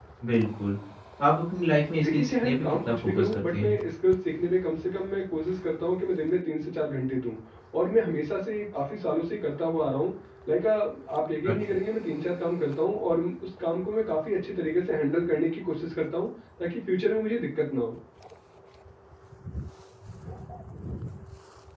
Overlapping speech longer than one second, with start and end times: 2.0-3.8

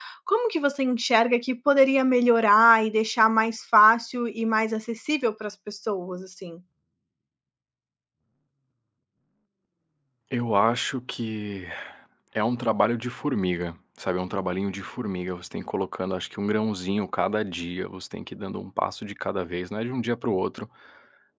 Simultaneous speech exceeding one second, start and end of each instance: none

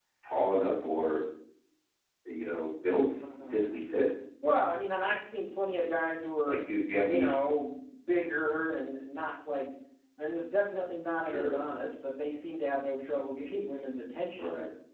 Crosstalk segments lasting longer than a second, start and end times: none

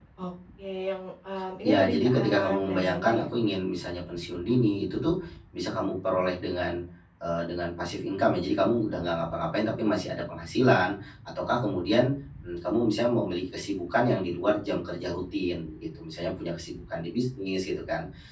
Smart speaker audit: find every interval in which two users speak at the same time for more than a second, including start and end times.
1.6-3.3

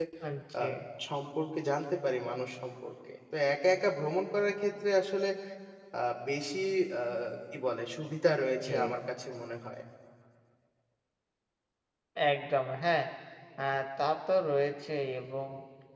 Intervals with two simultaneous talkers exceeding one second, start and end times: none

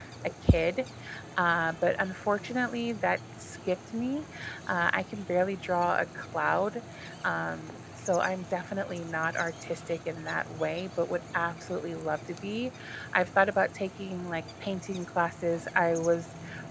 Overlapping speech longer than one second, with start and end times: none

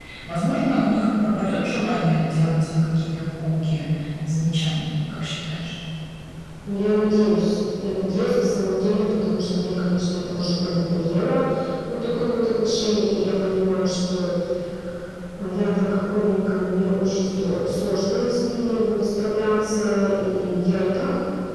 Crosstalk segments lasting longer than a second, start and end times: none

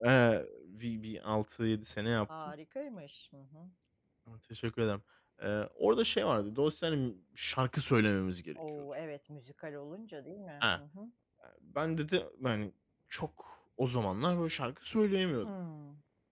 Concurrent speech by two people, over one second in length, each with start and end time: none

